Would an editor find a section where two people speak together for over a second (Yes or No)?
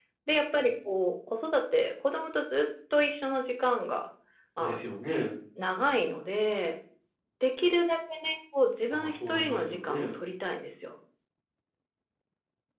Yes